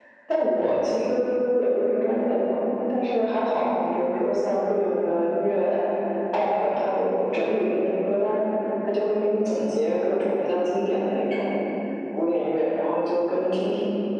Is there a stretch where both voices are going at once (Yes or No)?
No